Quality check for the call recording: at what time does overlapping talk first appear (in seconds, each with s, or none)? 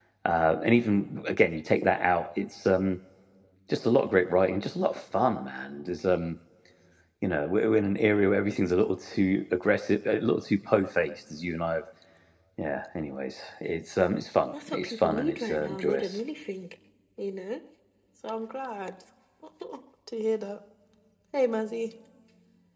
14.5 s